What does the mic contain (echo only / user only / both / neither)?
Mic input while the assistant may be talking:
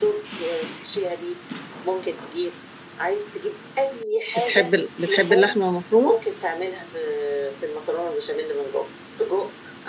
both